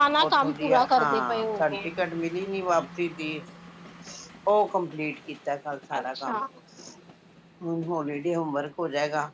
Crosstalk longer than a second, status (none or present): present